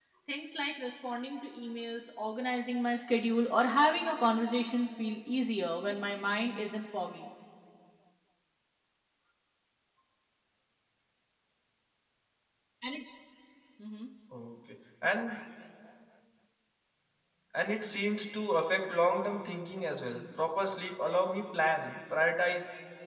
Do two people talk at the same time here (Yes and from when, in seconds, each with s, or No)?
No